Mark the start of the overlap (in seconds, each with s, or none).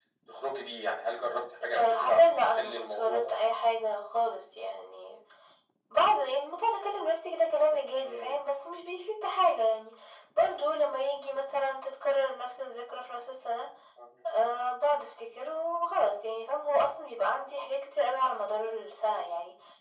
1.6 s